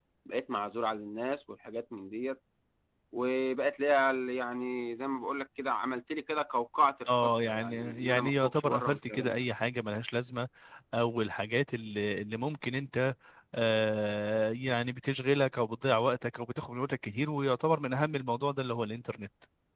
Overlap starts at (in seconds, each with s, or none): 7.1 s